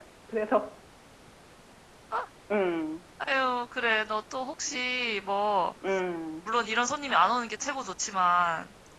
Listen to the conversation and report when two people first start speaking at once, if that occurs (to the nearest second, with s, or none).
none